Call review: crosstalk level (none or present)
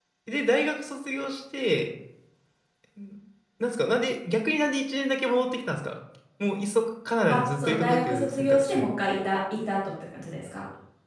present